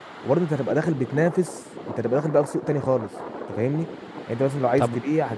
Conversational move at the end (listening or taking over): listening